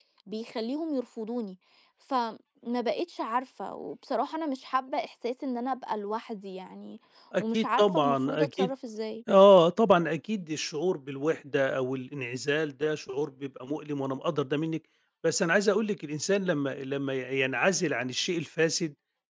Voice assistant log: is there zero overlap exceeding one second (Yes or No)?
No